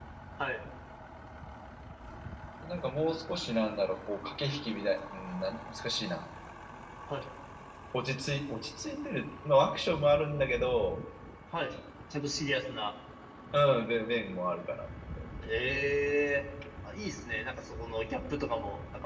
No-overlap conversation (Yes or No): Yes